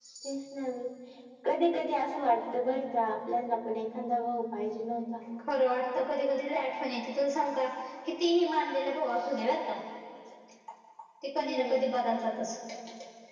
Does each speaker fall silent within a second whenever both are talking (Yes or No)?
Yes